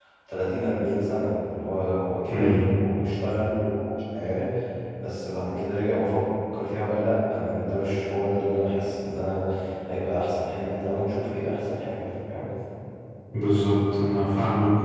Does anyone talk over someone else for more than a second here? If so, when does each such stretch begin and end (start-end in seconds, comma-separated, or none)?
none